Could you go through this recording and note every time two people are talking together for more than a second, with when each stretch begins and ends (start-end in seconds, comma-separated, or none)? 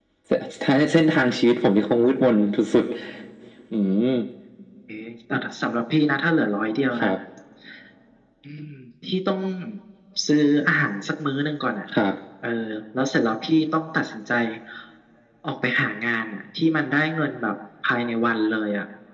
none